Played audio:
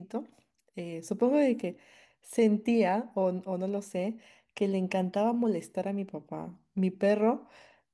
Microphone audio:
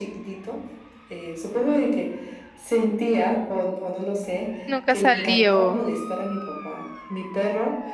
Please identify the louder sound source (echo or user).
user